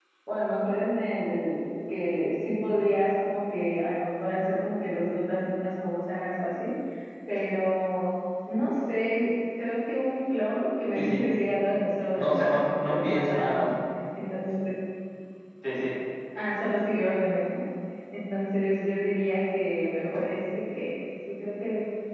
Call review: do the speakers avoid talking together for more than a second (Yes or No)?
No